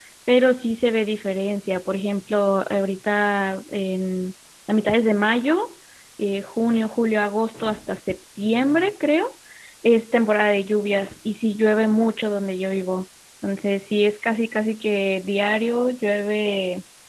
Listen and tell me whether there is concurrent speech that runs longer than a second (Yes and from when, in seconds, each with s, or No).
No